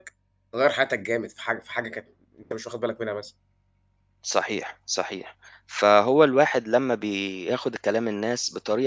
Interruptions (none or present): none